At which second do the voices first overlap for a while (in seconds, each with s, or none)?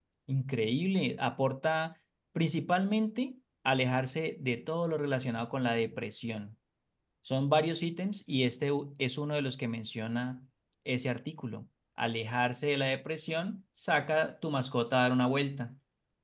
none